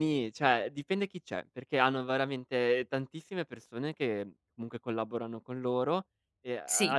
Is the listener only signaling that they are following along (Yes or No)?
No